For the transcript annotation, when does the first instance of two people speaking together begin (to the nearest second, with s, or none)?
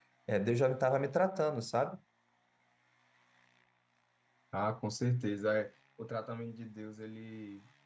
none